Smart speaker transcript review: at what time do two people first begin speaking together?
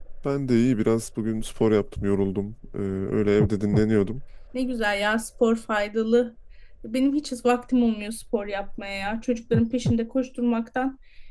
none

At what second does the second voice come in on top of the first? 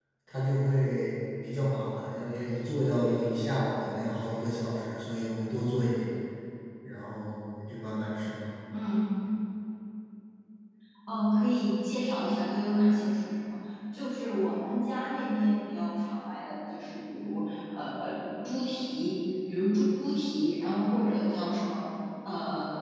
none

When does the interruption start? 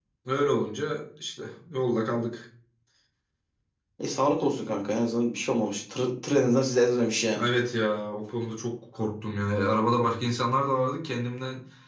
none

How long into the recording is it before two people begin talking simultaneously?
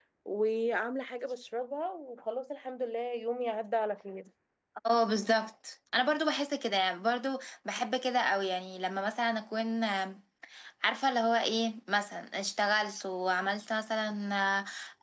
none

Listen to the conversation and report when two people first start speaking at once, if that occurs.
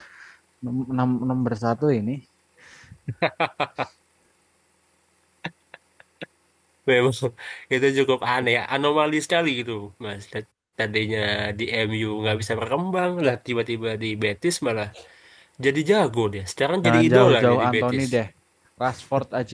16.8 s

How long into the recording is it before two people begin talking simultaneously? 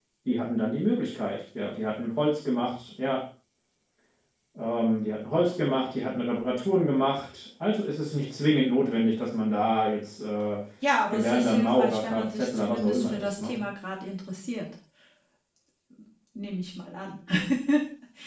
11.1 s

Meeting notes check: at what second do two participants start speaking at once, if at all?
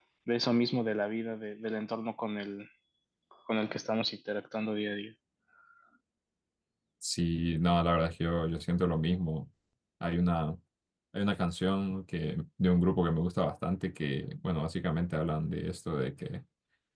none

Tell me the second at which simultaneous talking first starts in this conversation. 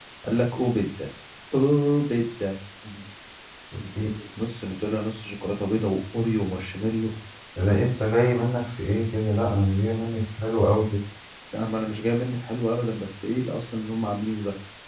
none

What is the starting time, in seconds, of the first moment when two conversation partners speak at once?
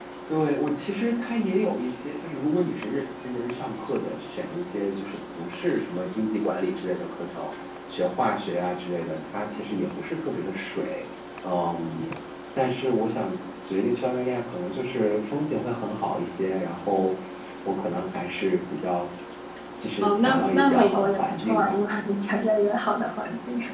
20.0 s

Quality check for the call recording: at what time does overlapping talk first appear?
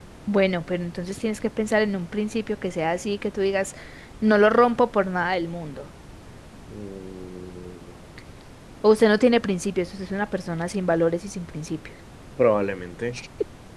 none

